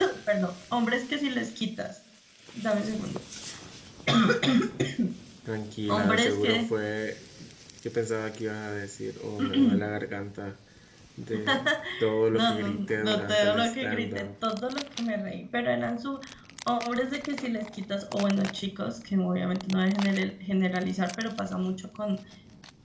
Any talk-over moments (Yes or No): Yes